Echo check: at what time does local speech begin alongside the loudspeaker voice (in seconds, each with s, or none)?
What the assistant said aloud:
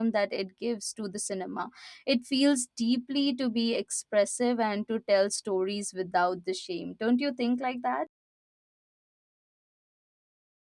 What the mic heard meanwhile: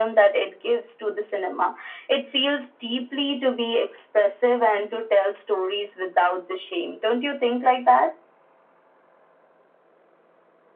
none